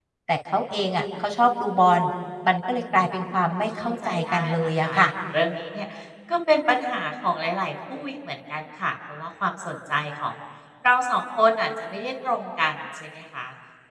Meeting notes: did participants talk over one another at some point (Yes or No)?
Yes